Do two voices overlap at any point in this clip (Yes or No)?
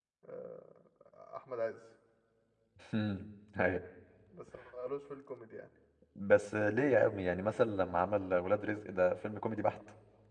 No